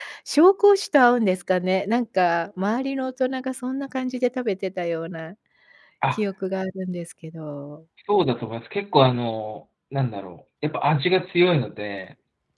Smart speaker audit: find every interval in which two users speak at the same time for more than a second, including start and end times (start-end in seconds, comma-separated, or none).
none